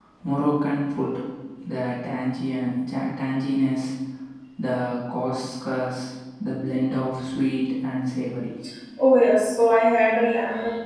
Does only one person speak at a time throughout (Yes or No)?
Yes